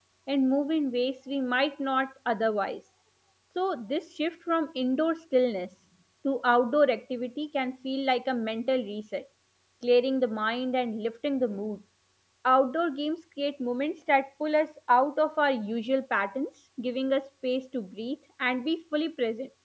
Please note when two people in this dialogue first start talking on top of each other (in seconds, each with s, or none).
none